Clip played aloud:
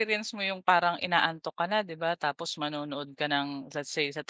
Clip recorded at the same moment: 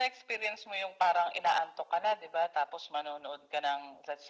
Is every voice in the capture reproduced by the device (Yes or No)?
Yes